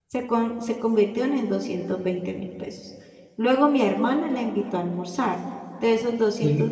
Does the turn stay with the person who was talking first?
Yes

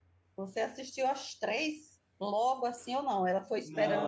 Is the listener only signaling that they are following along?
No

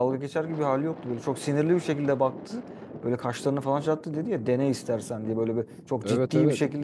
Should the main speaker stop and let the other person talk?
No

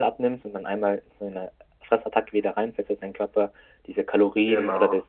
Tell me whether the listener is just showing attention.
Yes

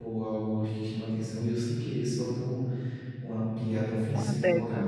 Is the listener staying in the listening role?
Yes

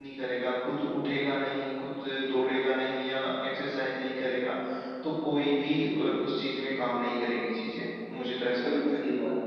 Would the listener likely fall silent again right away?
No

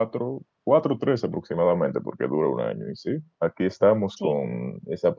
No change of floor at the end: Yes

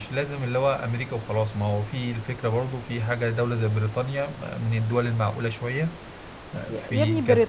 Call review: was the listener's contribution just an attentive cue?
No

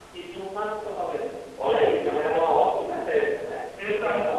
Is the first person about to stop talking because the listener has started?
Yes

